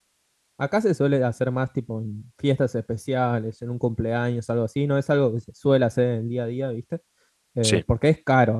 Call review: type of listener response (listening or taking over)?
listening